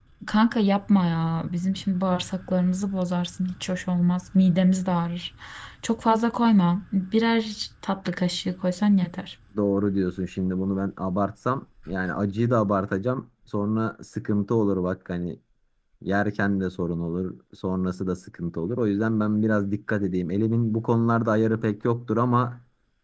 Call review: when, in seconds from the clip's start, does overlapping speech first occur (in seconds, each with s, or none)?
none